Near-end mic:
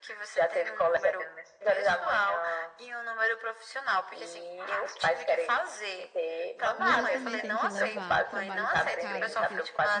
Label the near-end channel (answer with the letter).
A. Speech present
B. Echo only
A